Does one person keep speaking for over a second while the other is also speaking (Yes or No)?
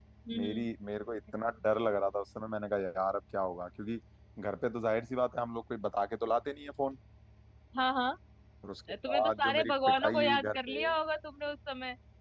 Yes